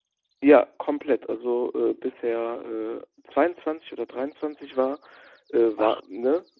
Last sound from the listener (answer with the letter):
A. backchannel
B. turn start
A